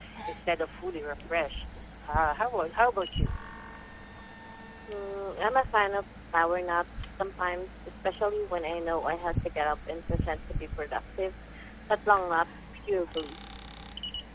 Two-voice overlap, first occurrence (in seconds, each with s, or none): none